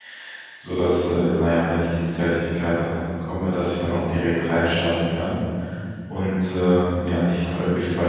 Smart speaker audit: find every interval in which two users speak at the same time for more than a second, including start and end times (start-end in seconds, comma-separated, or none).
none